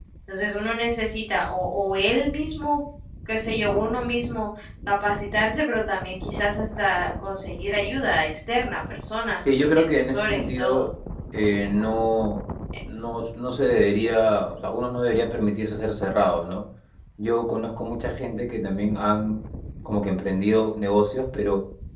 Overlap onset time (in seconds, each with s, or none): 9.4 s